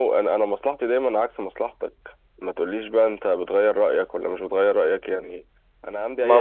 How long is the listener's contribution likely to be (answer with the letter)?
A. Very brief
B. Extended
B